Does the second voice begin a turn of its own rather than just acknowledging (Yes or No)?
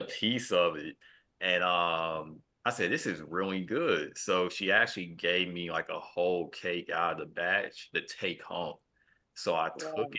No